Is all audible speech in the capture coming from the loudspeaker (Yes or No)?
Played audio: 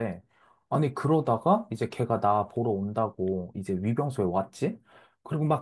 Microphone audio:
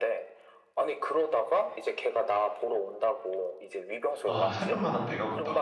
No